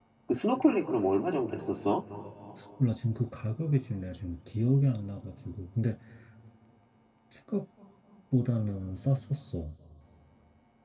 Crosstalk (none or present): none